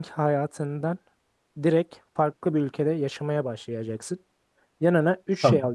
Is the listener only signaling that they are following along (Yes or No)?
Yes